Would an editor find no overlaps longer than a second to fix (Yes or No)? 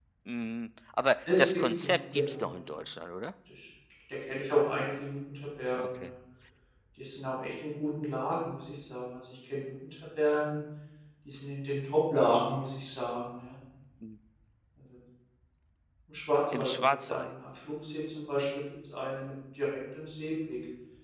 No